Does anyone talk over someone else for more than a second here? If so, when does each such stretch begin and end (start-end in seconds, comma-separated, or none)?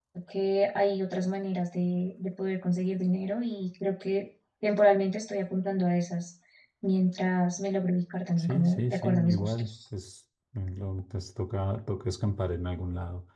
8.4-9.7